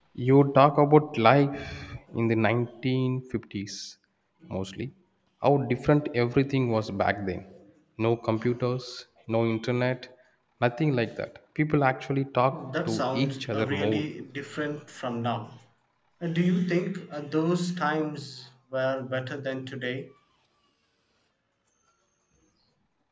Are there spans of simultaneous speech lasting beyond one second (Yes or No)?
Yes